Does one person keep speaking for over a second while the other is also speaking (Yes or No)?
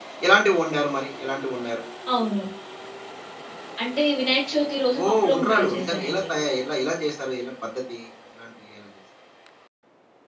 Yes